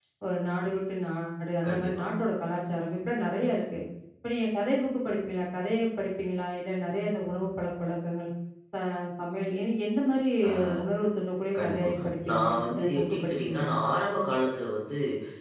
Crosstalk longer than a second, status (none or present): present